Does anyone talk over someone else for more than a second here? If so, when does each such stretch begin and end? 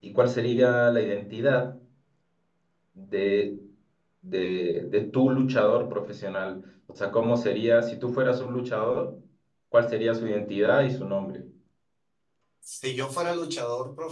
none

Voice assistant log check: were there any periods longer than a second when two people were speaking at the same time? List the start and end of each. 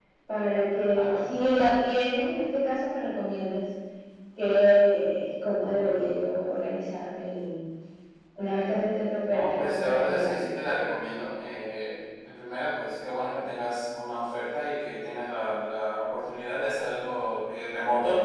9.3-10.5

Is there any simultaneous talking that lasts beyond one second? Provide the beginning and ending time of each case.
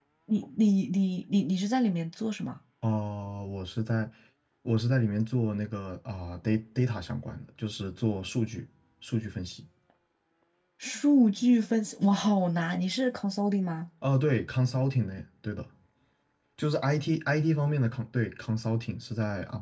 none

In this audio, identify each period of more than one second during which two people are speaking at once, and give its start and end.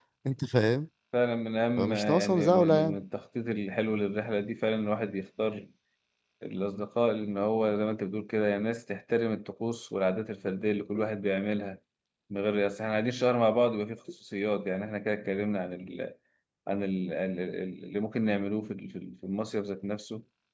1.8-3.0

